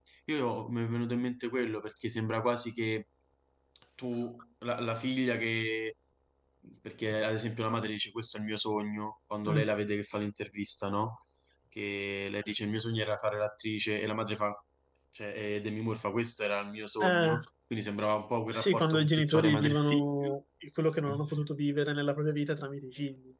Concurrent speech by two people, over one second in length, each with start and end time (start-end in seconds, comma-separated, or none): 18.5-20.4